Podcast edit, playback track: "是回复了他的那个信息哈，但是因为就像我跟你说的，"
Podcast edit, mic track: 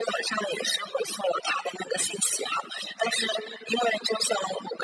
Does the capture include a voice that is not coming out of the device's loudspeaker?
No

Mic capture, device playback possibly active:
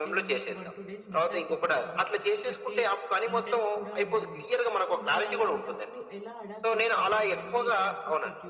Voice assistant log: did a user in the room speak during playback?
Yes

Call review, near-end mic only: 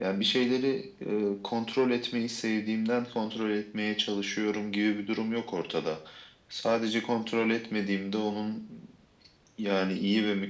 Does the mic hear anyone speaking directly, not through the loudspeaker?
No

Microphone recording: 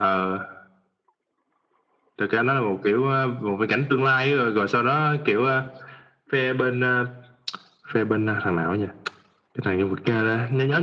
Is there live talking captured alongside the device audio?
No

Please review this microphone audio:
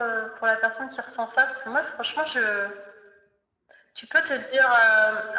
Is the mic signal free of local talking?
Yes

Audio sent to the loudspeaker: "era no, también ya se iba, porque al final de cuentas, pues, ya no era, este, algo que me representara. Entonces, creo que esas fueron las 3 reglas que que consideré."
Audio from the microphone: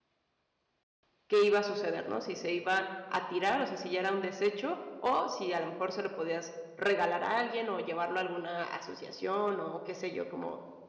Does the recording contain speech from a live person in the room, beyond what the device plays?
Yes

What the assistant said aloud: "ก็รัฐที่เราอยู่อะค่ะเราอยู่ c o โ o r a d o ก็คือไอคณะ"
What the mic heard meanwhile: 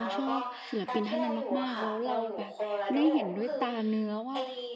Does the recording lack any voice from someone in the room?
No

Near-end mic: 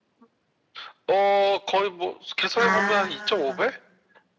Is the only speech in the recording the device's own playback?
No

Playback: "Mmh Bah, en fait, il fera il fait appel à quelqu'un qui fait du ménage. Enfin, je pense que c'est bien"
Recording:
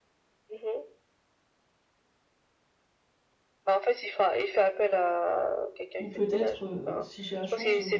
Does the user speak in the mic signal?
Yes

